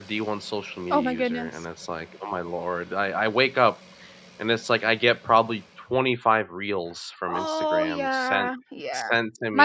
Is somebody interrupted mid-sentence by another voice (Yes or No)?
Yes